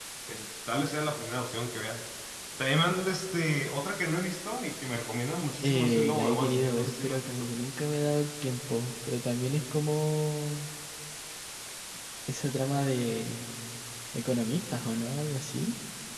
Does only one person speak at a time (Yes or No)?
No